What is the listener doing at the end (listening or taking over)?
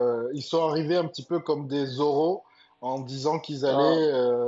listening